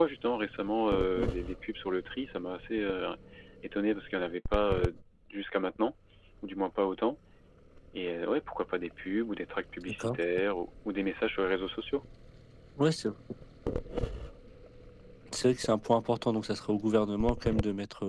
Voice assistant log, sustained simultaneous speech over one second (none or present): none